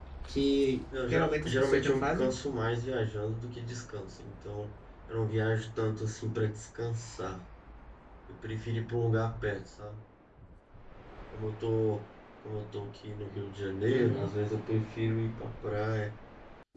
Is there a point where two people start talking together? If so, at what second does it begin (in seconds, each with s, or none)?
1.1 s